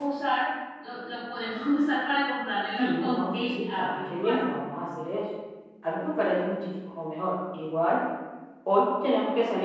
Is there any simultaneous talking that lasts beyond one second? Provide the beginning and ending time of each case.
2.8-4.4

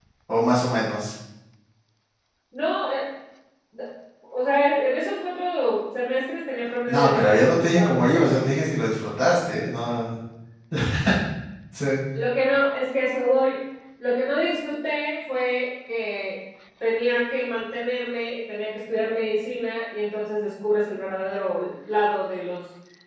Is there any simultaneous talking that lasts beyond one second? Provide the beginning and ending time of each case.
6.9-8.5

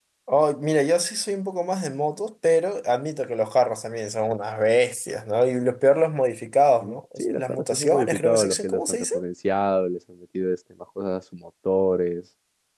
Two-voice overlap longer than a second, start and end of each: 6.8-9.1

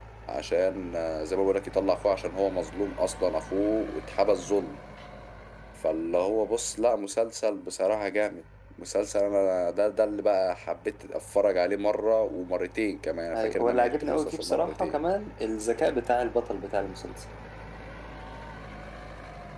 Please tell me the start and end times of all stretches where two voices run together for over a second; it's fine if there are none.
13.3-15.0

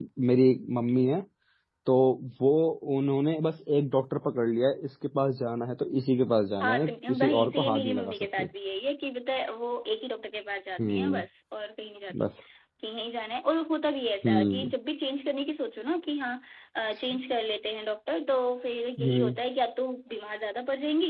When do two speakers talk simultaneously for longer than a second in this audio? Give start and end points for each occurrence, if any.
6.6-8.5

